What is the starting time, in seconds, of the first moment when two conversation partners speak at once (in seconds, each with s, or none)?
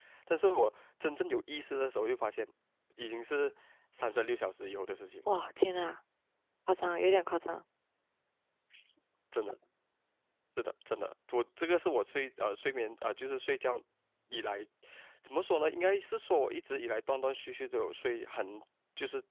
none